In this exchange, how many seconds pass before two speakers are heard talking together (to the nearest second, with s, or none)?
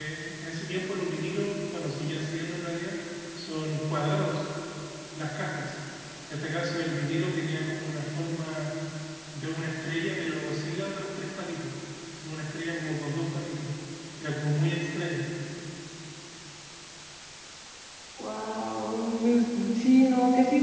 none